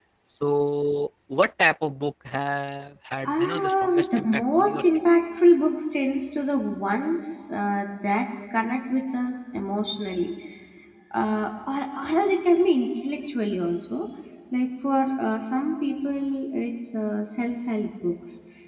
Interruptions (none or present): present